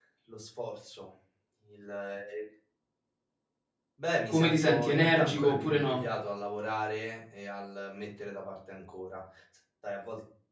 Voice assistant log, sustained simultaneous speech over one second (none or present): present